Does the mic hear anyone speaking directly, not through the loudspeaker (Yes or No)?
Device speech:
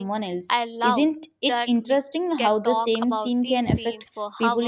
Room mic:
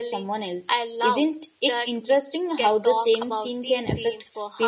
No